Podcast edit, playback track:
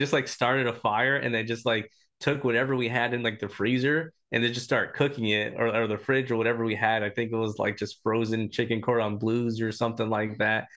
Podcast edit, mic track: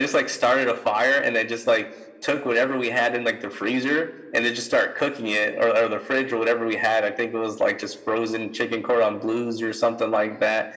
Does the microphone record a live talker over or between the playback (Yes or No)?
No